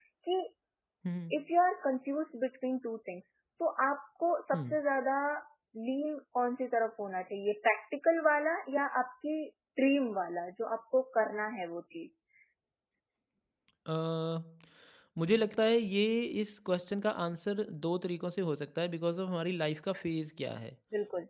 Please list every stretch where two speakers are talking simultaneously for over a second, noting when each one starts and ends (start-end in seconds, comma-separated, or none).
none